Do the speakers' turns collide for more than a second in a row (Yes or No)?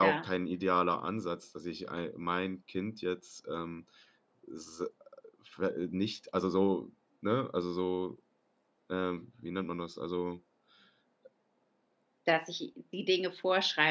No